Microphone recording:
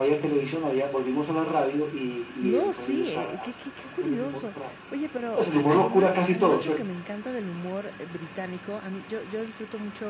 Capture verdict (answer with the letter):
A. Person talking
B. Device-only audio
A